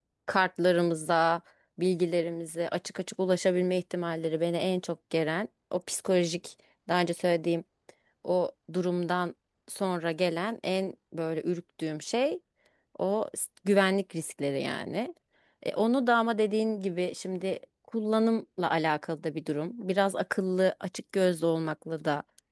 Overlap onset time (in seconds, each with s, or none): none